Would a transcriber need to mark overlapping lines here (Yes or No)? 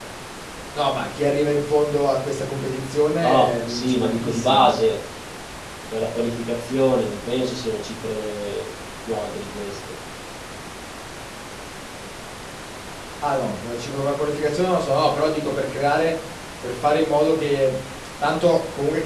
Yes